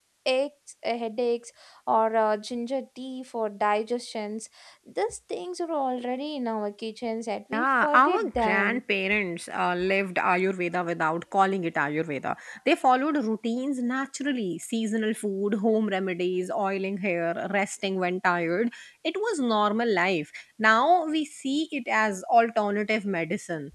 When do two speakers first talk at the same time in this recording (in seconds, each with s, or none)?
7.5 s